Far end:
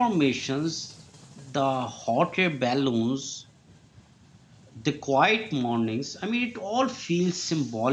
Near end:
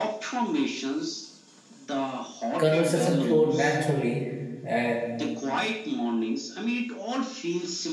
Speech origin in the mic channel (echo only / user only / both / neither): both